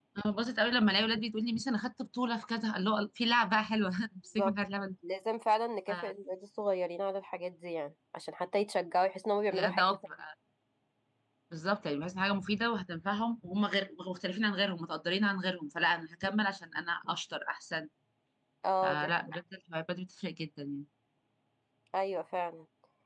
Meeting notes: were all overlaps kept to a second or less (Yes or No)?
Yes